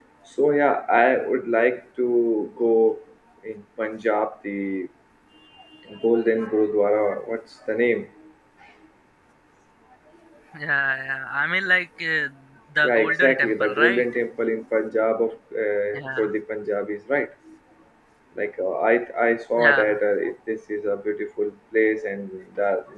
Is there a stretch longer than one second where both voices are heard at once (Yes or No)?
Yes